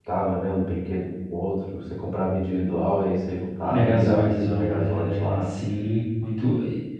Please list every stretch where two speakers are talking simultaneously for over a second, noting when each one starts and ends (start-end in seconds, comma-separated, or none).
3.7-5.5